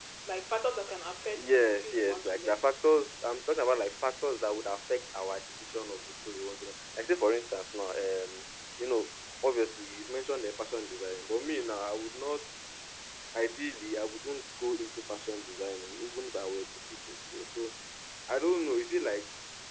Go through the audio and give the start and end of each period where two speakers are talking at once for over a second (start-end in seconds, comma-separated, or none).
1.4-2.6